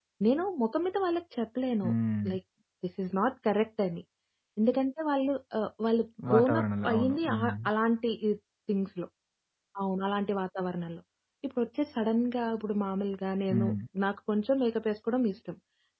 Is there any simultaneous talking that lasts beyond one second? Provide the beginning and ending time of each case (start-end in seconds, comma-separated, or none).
6.3-7.7